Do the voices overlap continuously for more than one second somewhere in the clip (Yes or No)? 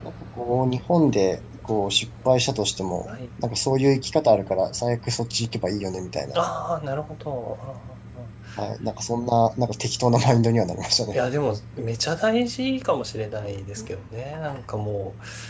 No